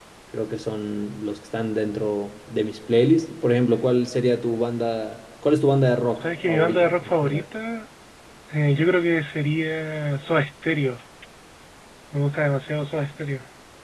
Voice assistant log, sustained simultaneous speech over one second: present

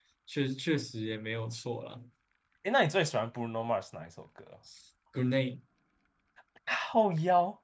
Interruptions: none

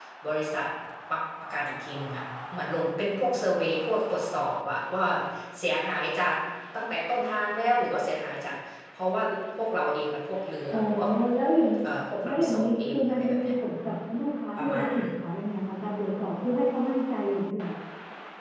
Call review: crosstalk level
present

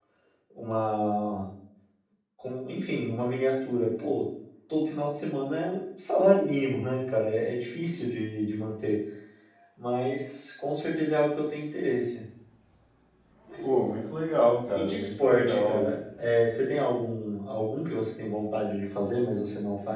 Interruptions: present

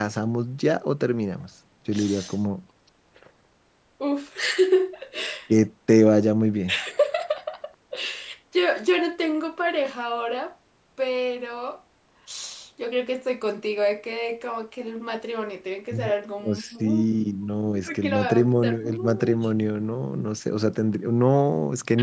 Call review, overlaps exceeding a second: present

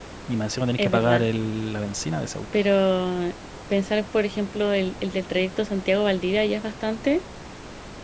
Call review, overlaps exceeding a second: none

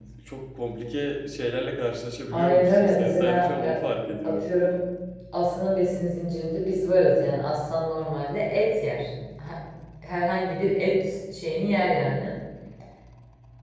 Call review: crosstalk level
present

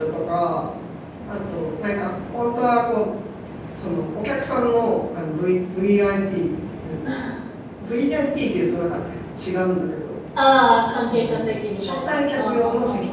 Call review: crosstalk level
present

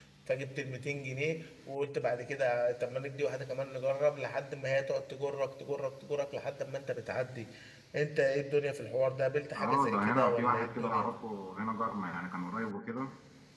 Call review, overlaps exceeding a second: present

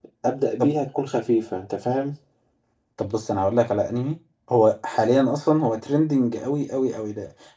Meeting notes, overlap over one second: none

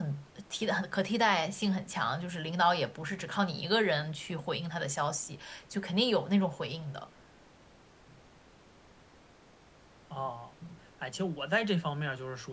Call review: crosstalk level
none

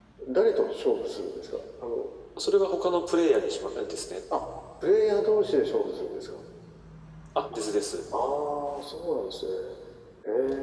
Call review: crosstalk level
none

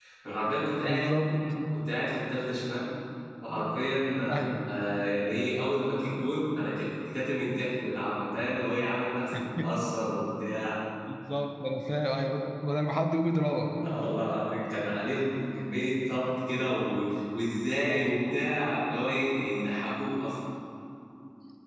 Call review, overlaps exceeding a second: none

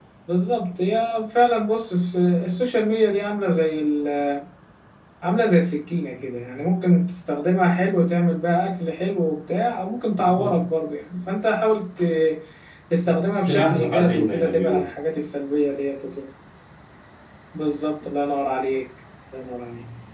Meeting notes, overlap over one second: present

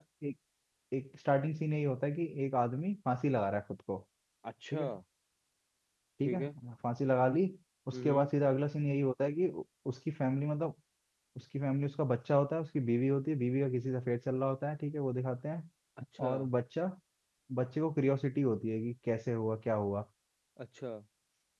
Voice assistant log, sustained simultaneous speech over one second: none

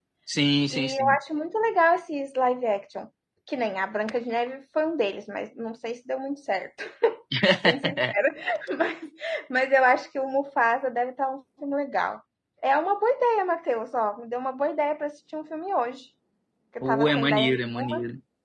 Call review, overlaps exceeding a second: present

